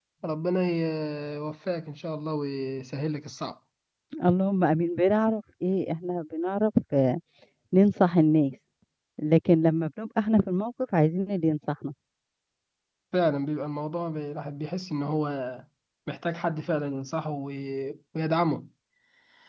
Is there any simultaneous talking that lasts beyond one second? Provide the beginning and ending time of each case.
none

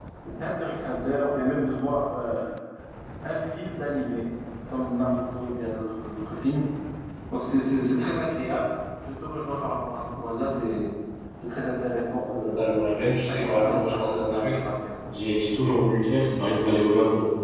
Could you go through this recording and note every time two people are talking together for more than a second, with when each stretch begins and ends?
12.2-14.6

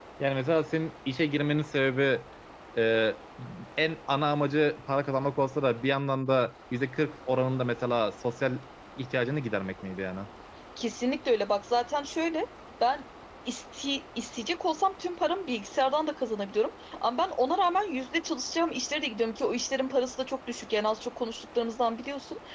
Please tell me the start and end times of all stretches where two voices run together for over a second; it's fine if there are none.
none

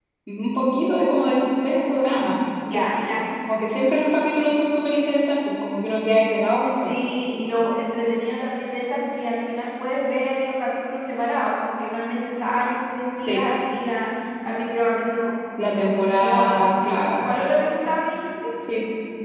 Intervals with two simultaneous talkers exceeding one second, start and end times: none

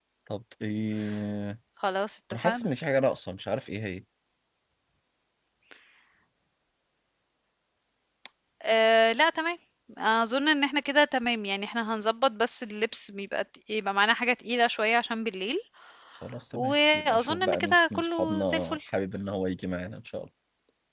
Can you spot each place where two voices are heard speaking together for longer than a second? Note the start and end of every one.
16.5-18.8

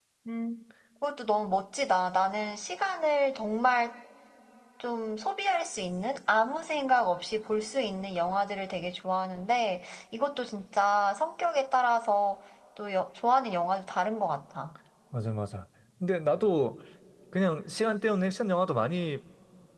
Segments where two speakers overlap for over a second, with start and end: none

